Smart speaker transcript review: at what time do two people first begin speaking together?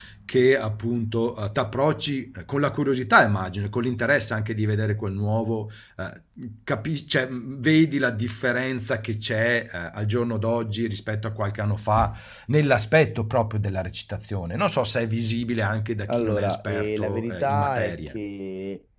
16 s

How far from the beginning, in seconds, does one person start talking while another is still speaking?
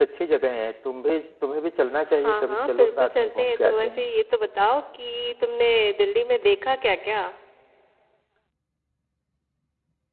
2 s

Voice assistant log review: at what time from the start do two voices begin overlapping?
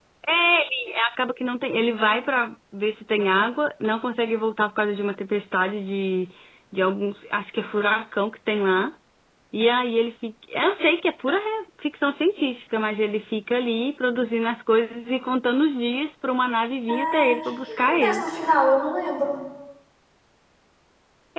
17 s

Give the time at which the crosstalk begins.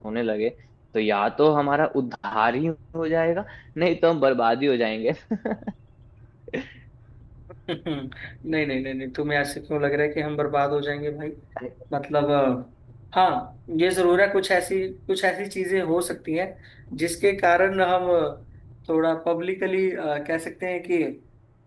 none

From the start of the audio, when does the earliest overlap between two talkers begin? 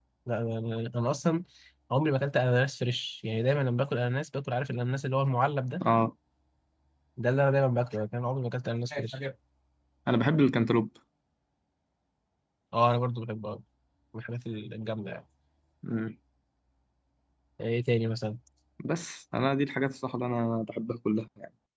none

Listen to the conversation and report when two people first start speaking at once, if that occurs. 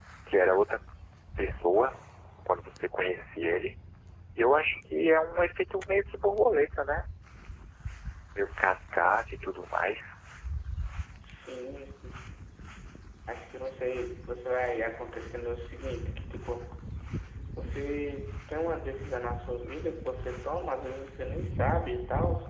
none

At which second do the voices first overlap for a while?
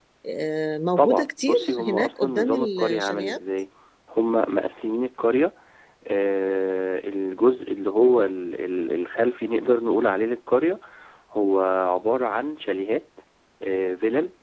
1 s

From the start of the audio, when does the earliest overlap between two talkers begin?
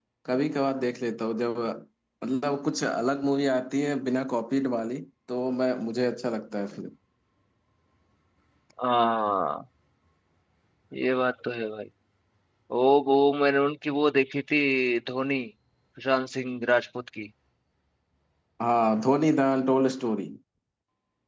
none

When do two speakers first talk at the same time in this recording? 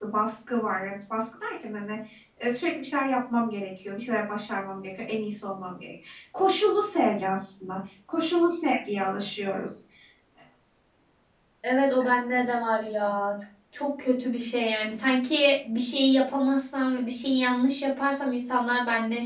none

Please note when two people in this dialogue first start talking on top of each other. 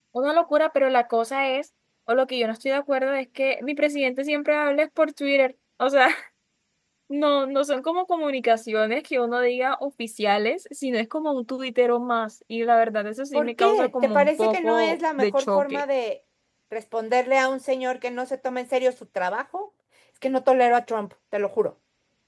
13 s

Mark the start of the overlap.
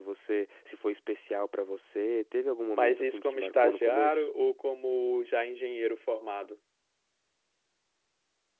3 s

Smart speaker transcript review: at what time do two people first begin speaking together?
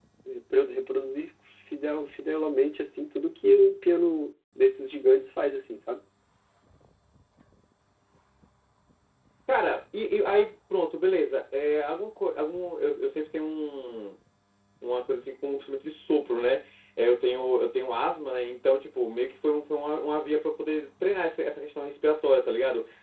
none

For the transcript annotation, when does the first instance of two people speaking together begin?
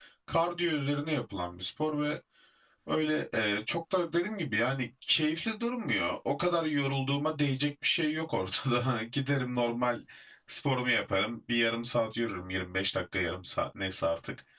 none

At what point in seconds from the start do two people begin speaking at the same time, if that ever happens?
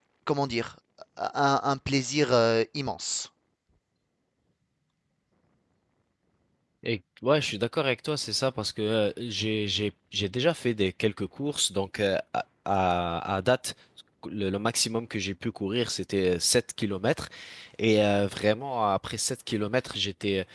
none

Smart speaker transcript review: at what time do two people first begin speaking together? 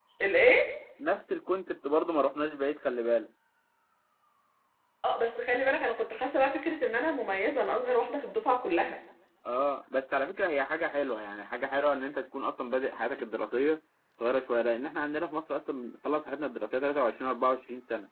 none

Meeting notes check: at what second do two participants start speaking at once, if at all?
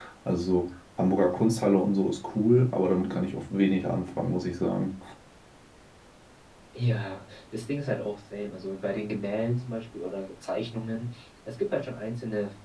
none

